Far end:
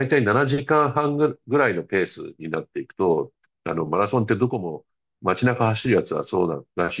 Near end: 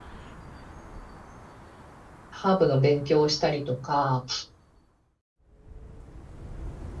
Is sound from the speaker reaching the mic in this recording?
No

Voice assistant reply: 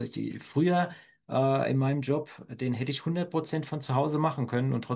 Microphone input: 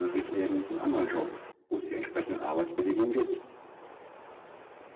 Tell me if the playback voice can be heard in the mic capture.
No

